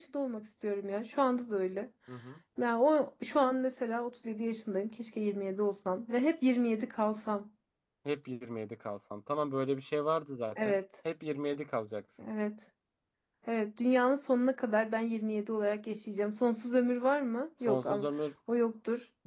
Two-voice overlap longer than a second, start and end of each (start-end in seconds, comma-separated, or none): none